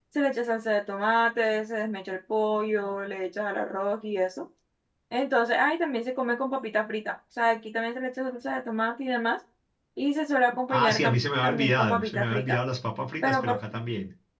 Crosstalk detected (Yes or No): Yes